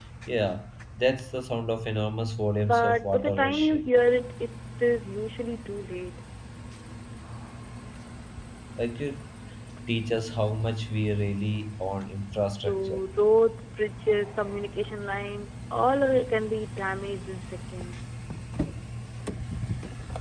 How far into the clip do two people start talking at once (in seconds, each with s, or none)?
2.6 s